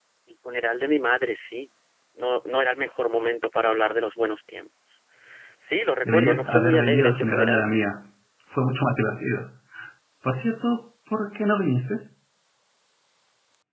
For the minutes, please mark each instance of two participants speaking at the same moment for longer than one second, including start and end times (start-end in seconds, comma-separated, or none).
6.0-7.6